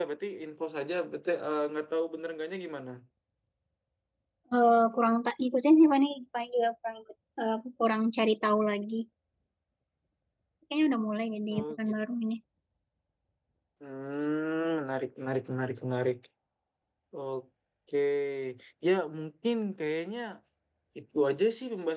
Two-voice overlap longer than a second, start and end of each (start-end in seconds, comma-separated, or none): none